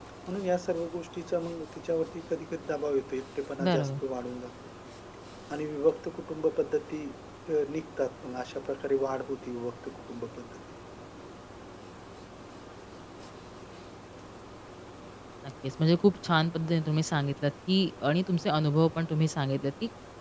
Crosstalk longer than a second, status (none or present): none